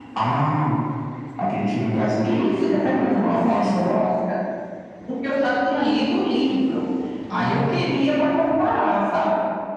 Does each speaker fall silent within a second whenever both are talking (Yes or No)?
No